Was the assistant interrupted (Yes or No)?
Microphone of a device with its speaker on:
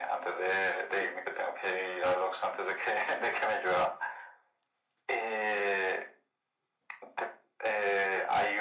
No